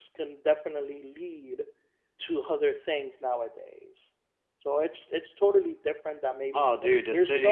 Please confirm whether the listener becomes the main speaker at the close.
Yes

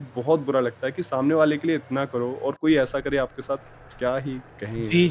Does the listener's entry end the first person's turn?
Yes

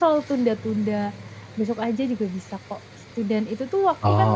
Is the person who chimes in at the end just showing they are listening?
Yes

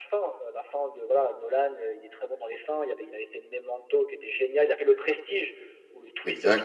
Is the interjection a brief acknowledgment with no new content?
Yes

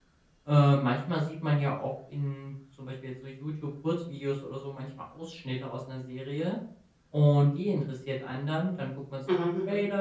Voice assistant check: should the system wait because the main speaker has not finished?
Yes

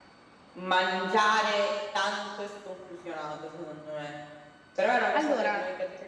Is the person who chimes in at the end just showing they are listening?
Yes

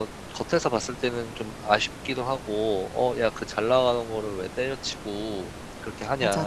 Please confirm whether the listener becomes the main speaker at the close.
Yes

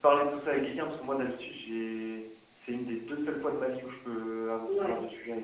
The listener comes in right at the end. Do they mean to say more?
Yes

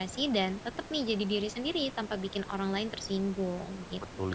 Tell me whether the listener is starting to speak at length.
Yes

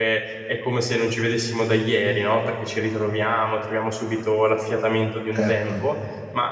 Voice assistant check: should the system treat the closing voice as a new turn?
No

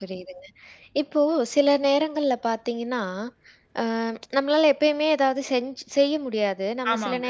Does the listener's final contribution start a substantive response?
No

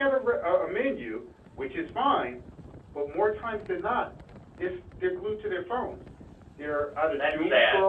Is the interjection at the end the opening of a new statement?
No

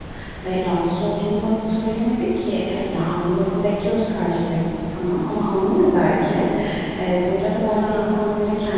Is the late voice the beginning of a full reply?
No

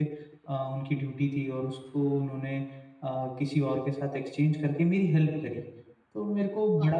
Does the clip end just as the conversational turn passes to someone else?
No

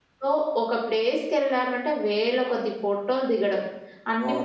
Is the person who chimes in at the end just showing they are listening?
Yes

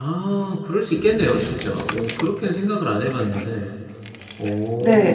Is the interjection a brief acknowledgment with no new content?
No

